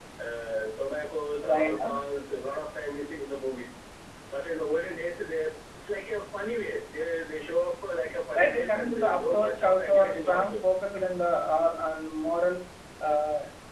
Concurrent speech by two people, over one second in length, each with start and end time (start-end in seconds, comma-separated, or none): 8.4-10.6